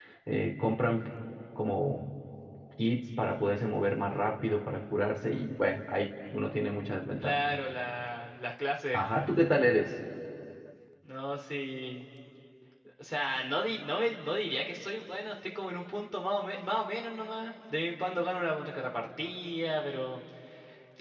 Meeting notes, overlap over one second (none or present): none